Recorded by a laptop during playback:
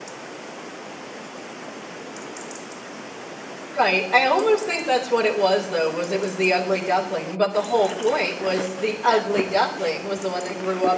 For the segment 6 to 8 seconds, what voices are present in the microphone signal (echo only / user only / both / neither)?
user only